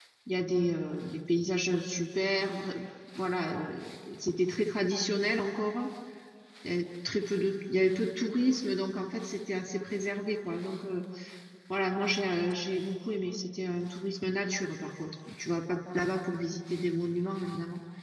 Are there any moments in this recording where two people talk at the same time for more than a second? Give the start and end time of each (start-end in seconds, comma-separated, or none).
none